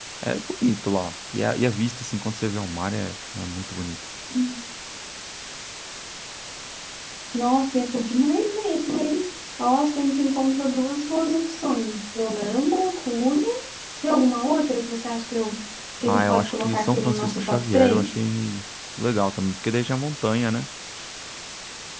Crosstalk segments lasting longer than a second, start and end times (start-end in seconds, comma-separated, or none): 16.0-18.1